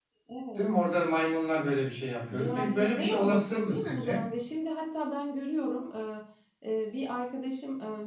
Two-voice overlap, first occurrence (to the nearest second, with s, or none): 2 s